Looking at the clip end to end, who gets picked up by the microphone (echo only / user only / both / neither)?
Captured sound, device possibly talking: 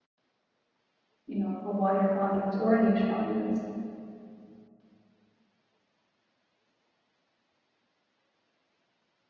user only